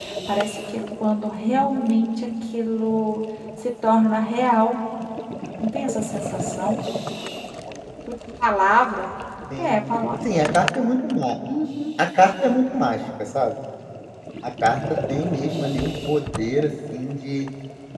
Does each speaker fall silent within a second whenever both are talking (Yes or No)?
Yes